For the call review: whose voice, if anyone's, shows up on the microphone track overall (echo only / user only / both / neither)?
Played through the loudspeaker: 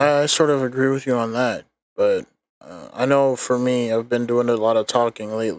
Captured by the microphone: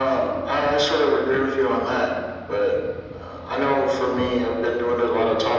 echo only